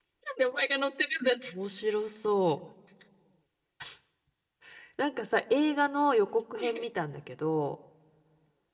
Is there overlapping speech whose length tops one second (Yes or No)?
No